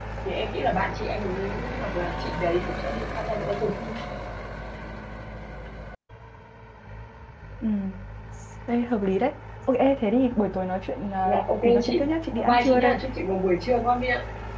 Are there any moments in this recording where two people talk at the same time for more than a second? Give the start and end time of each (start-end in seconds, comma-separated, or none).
11.2-12.9